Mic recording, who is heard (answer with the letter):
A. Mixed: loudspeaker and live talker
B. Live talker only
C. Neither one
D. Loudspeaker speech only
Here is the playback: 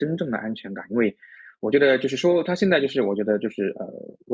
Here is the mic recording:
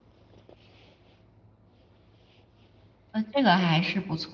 B